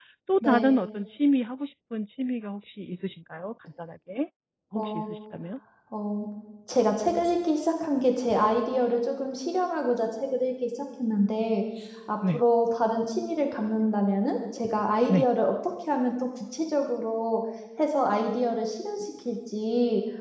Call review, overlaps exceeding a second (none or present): none